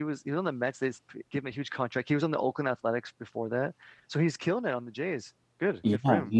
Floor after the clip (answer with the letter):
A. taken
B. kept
A